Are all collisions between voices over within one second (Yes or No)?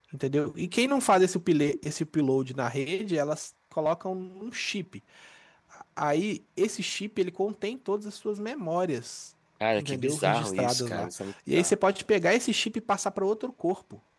No